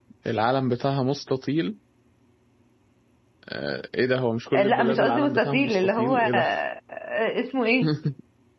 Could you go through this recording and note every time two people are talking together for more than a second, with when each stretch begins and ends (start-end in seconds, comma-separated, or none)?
4.5-6.4